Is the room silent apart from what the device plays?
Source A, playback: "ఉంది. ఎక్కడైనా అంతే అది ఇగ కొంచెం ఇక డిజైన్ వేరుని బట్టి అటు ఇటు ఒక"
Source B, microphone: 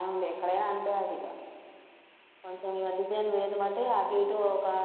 Yes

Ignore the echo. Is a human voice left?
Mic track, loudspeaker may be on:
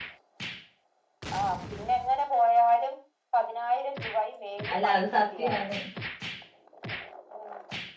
Yes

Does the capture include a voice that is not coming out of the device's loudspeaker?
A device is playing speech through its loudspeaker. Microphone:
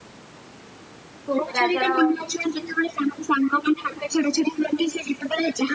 Yes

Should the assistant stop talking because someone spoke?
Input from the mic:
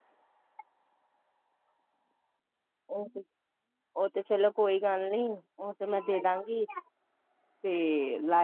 Yes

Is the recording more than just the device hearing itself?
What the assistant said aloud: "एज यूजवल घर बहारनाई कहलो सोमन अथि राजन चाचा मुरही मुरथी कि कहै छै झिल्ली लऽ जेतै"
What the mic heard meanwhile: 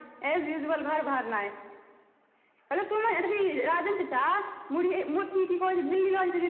No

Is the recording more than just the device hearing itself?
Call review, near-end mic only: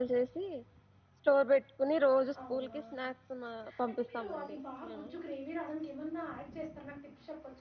Yes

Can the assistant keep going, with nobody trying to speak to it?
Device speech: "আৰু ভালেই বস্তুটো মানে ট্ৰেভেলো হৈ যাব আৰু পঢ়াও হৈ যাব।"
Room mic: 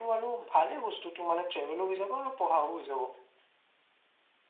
Yes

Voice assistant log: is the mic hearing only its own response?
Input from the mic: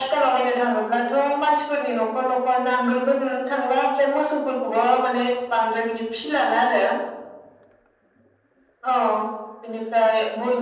Yes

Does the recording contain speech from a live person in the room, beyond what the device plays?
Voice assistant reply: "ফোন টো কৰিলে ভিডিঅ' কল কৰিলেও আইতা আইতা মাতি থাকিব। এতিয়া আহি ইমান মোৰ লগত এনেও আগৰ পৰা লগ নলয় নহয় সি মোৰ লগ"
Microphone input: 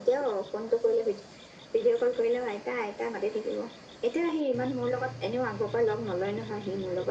No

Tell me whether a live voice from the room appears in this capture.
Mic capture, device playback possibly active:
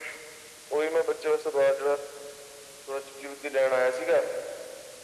No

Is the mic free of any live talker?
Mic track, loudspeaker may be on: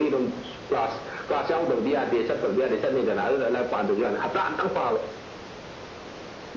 Yes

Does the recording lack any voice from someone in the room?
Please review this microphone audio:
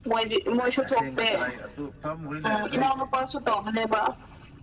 No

